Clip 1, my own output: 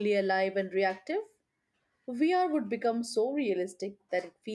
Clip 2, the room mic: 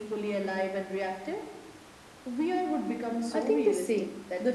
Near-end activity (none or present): present